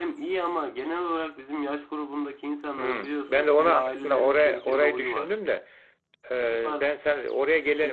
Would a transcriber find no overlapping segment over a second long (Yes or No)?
No